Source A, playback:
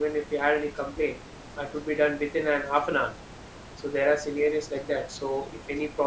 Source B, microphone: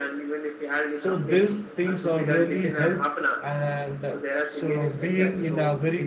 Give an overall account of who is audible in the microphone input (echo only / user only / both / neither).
both